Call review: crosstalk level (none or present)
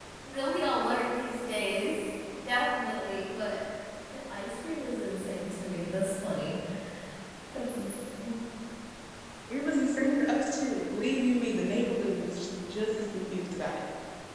none